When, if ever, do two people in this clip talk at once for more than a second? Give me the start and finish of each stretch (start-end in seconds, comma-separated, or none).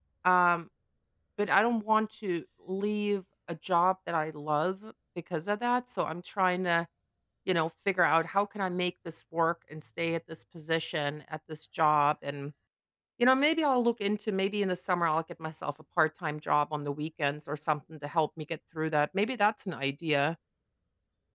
none